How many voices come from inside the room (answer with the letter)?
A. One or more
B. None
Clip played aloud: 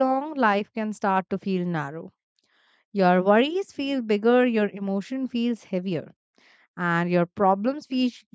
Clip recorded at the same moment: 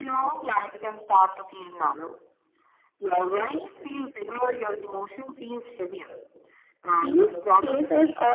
A